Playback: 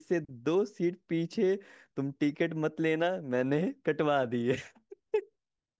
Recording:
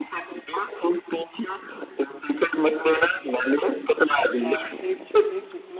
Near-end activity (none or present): present